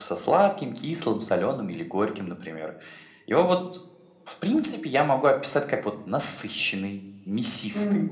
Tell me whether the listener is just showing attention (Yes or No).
Yes